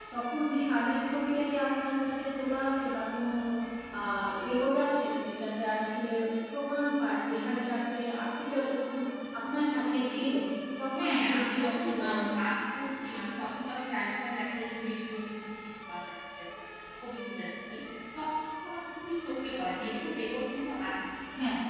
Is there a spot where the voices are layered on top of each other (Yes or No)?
Yes